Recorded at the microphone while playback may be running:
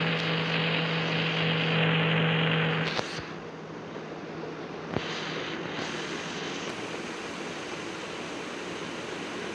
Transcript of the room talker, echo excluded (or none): none